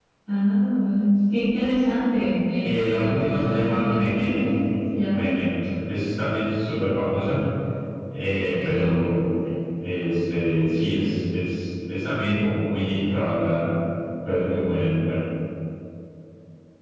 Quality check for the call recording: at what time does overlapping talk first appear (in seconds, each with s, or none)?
2.6 s